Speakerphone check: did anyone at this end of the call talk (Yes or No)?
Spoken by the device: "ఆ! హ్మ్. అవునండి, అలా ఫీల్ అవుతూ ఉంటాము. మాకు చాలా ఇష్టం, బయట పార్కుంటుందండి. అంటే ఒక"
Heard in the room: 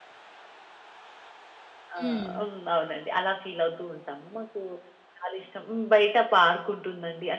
Yes